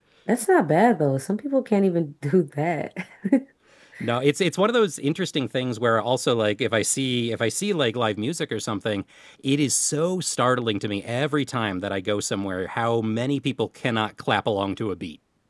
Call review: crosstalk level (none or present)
none